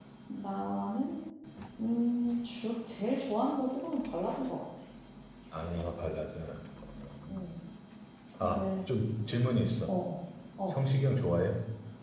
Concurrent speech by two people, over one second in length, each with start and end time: none

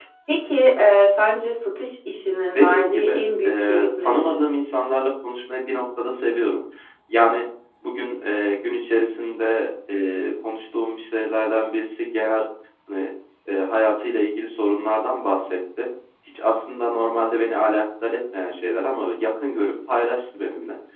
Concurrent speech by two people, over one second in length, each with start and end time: 2.5-4.3

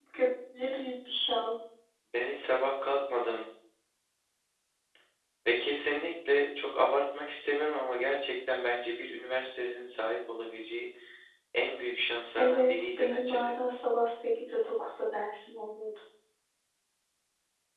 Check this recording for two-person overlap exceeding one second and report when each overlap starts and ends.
12.4-13.6

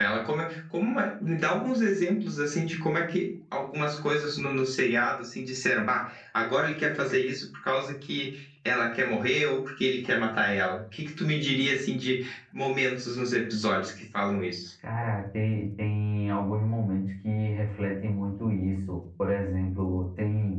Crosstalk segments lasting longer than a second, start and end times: none

